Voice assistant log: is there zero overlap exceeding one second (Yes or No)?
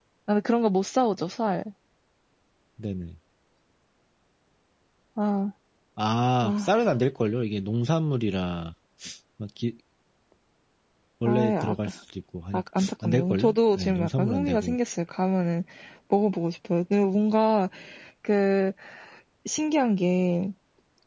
No